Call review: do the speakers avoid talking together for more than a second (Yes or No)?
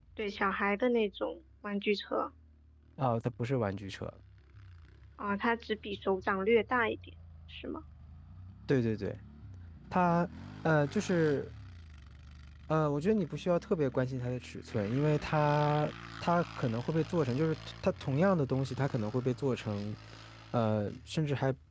Yes